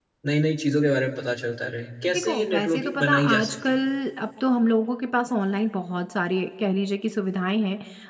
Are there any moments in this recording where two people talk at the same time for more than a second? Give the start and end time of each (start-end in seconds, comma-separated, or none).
2.1-3.8